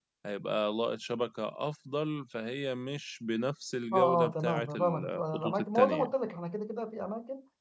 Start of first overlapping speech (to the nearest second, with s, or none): 4 s